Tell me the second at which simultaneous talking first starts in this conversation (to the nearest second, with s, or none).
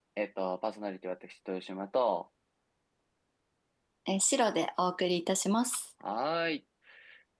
none